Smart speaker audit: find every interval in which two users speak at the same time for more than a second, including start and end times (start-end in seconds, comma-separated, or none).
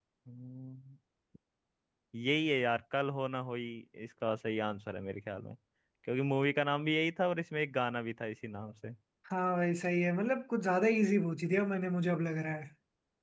none